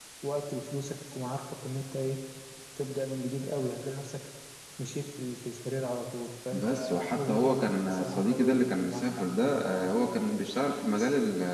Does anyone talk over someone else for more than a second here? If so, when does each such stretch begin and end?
6.5-9.6

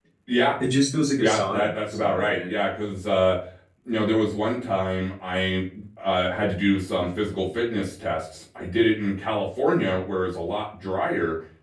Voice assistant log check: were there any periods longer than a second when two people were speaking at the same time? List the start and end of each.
1.2-2.6

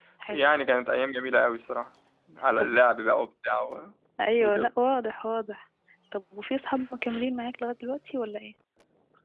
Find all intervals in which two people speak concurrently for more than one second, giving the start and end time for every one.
none

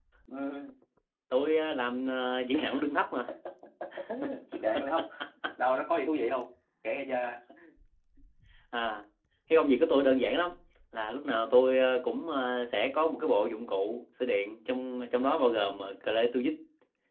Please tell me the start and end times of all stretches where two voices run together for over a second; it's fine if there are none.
none

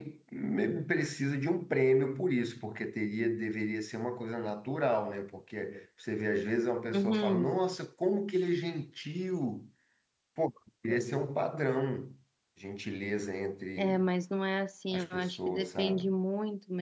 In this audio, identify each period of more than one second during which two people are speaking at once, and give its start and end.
14.9-16.1

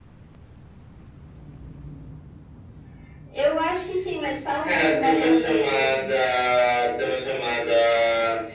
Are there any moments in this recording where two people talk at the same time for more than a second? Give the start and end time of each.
4.6-6.1

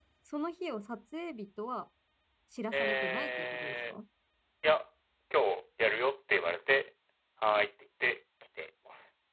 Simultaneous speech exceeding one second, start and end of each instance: 2.7-3.9

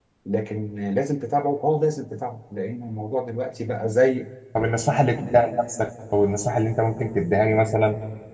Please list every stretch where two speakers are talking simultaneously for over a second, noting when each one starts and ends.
none

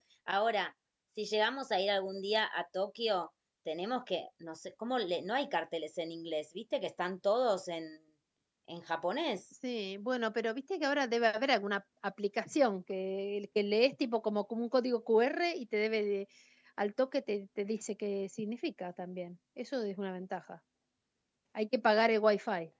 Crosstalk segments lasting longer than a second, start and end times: none

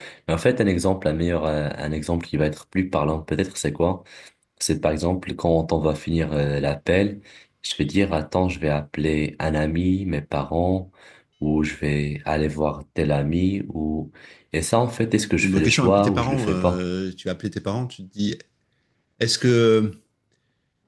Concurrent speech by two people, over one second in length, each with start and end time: 15.4-16.8

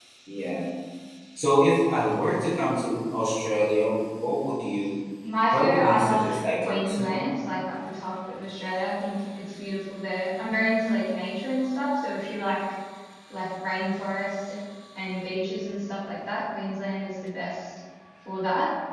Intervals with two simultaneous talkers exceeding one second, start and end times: 5.5-7.2

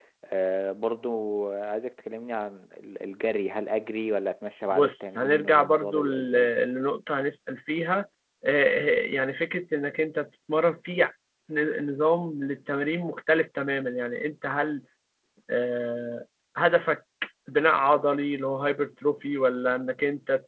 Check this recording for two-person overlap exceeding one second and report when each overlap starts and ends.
4.7-6.5

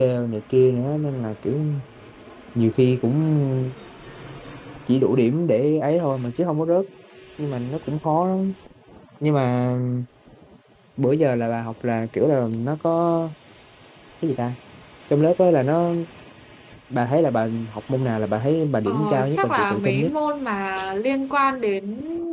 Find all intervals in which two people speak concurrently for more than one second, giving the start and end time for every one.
18.9-20.1

